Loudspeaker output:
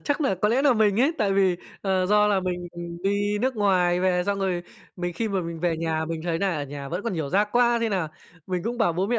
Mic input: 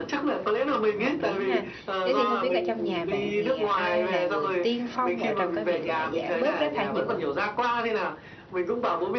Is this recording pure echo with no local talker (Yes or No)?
No